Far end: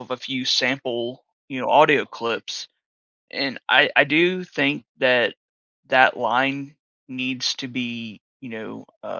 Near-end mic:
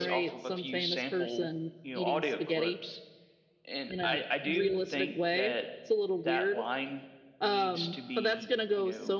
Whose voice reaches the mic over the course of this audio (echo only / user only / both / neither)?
both